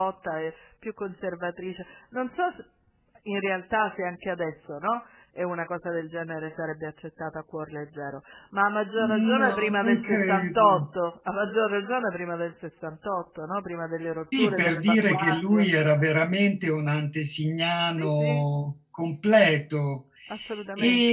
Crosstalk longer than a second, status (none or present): present